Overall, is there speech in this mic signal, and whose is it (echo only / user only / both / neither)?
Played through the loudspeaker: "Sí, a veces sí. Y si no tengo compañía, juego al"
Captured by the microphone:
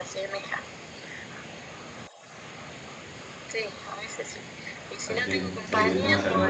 both